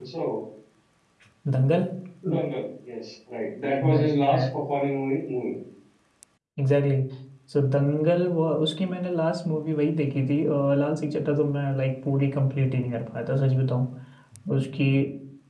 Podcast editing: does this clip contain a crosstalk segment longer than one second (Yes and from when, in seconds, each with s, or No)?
No